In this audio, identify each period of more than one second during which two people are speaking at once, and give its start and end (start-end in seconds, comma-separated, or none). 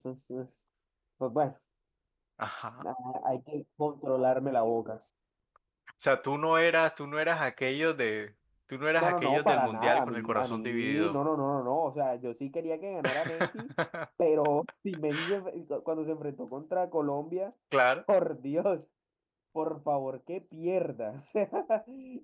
9.0-11.2